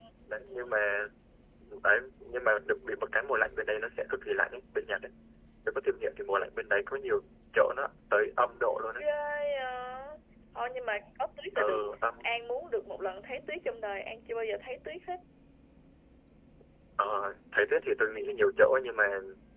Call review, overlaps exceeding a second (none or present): none